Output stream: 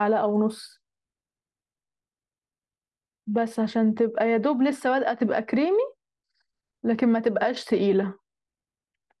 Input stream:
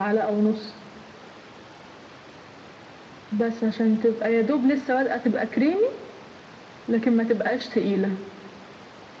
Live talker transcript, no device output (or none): none